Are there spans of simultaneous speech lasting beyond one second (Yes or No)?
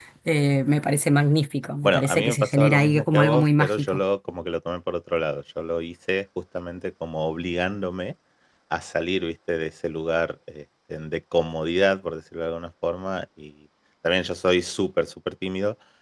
Yes